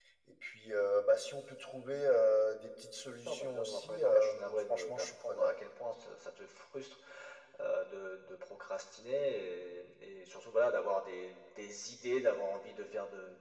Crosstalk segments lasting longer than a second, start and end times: 3.2-5.5

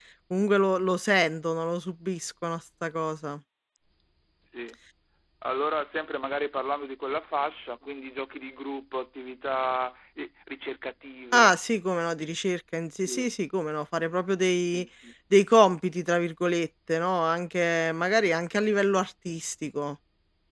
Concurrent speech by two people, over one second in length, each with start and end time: none

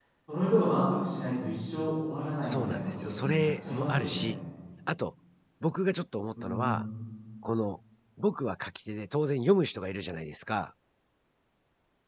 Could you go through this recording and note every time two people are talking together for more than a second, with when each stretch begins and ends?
2.4-4.3

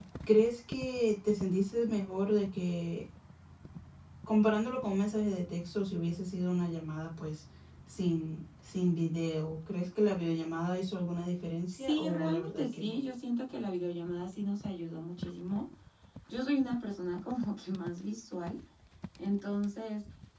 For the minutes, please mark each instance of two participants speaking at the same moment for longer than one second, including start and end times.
11.7-13.0

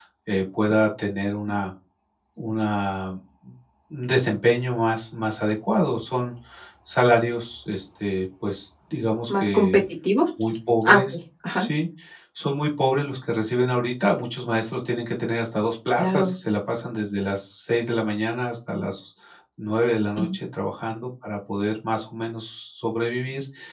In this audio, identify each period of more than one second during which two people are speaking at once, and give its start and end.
none

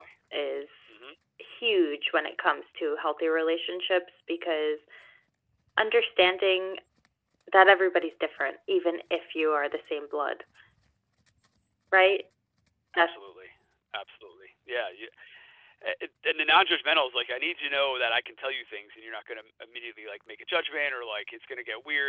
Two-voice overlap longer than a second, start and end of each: none

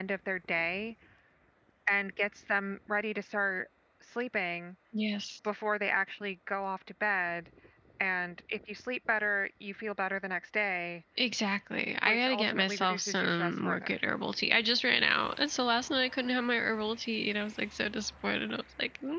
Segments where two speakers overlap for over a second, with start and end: 12.0-13.9

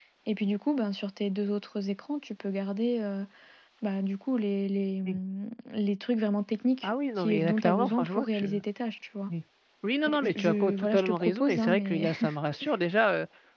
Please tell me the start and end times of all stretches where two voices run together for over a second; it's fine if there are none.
6.8-8.5, 10.1-12.1

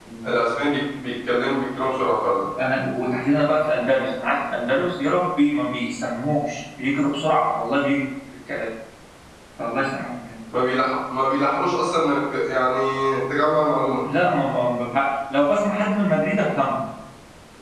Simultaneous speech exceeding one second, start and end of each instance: none

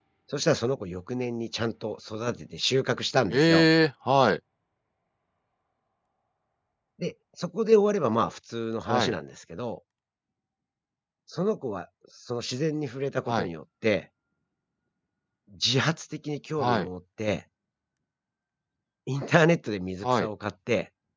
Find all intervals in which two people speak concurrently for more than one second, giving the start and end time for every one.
none

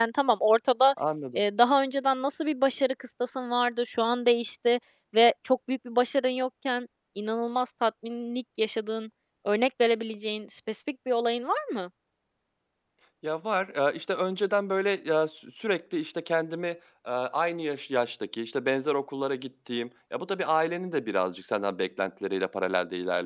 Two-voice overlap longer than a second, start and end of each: none

